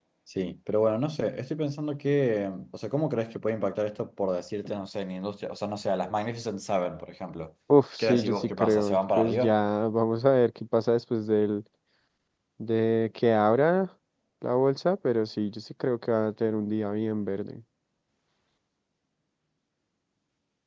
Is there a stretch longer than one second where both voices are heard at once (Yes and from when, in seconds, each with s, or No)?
Yes, from 8.0 s